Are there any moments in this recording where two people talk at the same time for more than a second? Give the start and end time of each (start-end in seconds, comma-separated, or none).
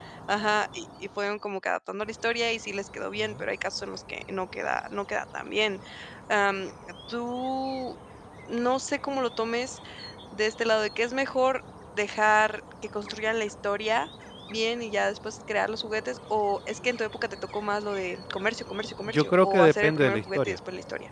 19.1-20.6